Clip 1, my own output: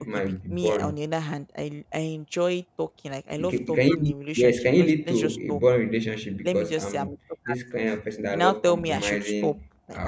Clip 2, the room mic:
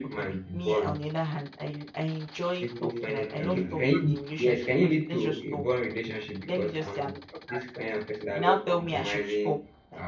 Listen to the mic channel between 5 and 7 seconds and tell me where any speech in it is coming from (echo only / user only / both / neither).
echo only